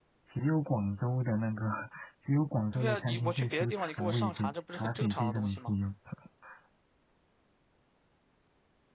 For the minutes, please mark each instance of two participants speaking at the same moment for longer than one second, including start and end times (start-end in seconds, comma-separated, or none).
2.7-5.7